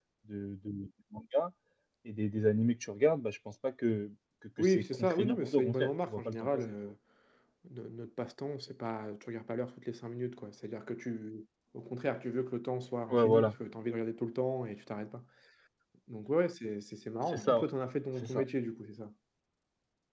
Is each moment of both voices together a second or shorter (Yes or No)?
No